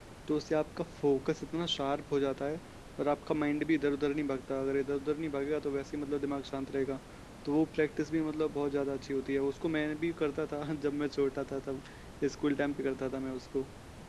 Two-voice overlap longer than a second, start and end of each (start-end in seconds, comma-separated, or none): none